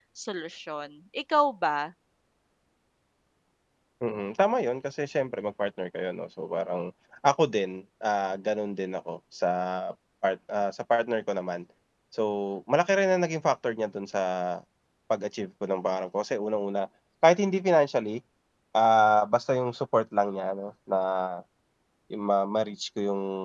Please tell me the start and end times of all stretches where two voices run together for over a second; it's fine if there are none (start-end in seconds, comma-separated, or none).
none